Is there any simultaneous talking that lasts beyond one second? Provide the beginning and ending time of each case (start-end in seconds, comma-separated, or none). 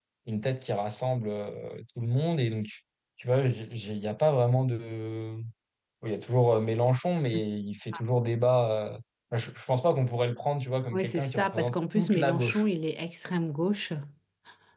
10.9-12.6